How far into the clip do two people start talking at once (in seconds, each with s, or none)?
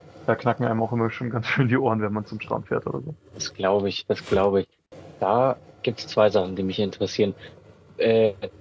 none